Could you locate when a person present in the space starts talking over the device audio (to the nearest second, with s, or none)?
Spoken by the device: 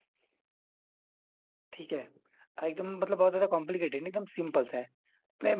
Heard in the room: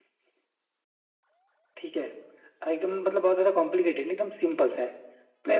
none